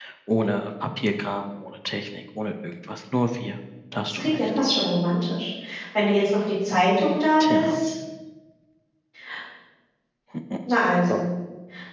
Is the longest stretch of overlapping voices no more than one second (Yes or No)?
Yes